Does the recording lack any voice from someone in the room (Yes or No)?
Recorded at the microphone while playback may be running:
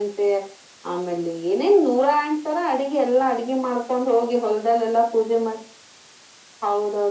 Yes